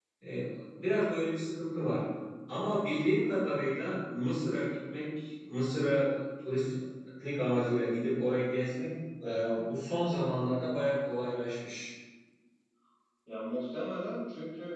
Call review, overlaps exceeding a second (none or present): none